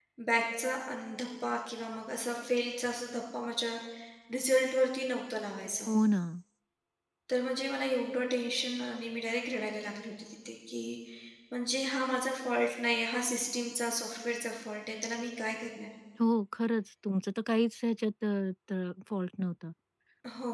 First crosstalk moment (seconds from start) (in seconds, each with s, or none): none